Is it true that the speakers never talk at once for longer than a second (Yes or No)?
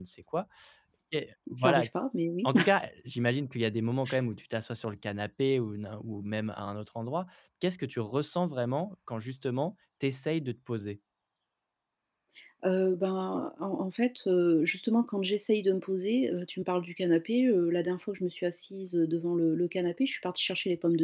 Yes